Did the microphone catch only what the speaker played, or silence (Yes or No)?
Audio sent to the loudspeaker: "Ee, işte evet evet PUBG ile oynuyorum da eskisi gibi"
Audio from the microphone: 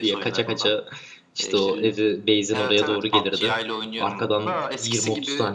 No